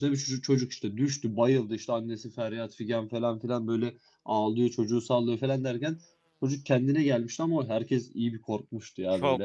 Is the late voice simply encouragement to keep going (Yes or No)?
No